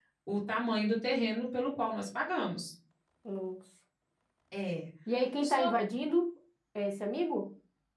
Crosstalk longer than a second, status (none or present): none